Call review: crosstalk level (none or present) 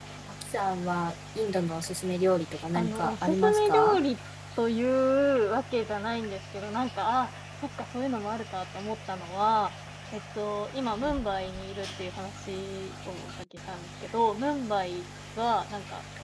present